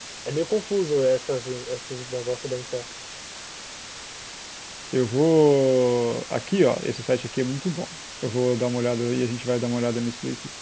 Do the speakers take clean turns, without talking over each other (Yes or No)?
Yes